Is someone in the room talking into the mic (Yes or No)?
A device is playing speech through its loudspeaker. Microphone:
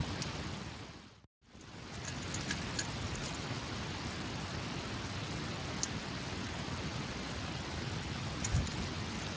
No